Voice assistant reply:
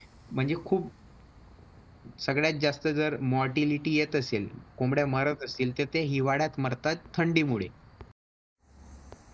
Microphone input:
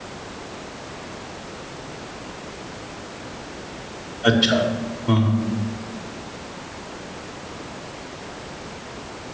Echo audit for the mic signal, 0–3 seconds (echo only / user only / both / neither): neither